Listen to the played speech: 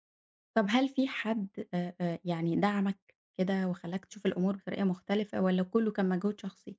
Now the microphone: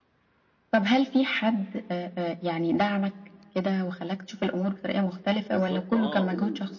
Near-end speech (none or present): present